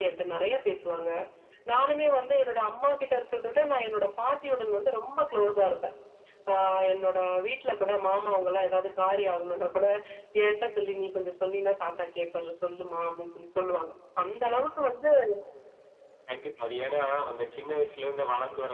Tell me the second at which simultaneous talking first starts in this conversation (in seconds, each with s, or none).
none